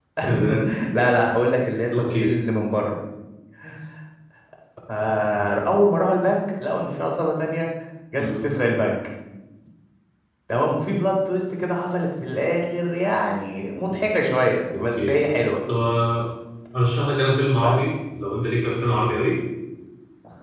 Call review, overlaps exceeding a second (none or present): none